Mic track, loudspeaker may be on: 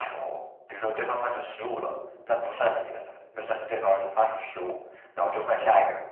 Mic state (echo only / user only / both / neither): echo only